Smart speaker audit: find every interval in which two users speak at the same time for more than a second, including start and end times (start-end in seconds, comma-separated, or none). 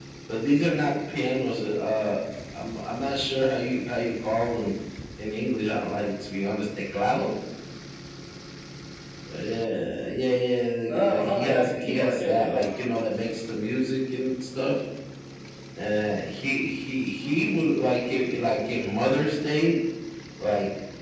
10.9-12.6